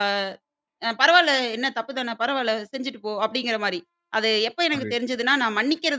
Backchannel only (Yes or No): Yes